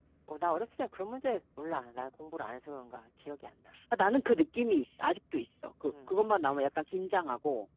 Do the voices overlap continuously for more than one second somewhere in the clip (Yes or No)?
No